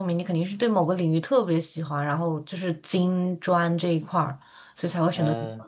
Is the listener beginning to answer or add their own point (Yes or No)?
Yes